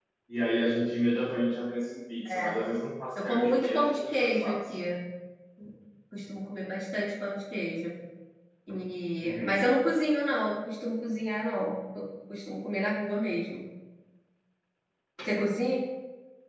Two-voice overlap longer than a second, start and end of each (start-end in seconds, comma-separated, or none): 3.2-4.6